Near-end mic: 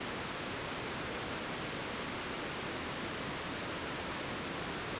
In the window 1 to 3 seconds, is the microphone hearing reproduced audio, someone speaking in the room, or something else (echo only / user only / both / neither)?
neither